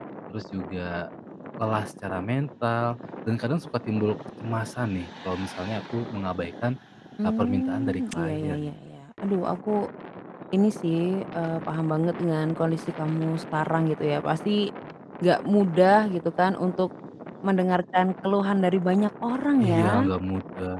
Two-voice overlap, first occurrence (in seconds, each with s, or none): 7.2 s